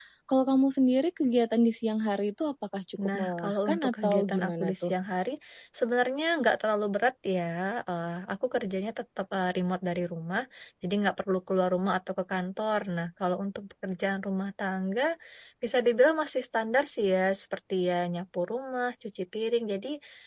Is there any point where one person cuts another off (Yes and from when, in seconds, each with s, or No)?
Yes, from 3.0 s